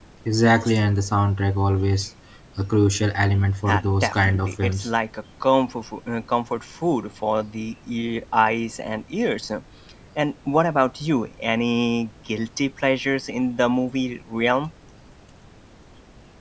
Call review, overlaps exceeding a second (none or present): present